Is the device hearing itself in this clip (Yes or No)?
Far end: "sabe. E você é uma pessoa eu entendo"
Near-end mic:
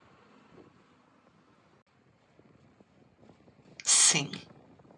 No